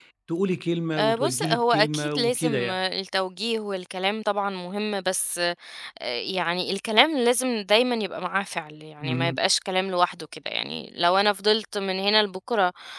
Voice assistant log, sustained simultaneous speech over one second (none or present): present